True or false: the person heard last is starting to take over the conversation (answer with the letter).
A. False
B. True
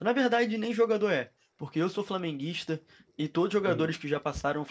A